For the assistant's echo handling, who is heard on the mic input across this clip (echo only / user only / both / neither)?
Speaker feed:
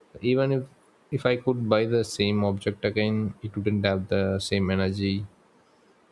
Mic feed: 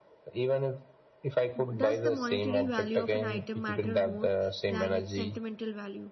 both